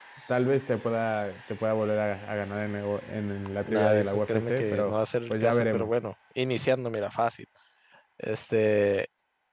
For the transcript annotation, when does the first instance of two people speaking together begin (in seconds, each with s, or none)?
3.6 s